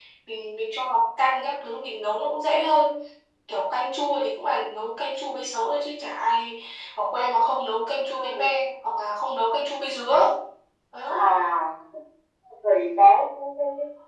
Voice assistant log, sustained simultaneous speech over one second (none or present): none